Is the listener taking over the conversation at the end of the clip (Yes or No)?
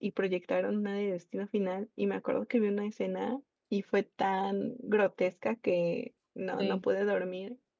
No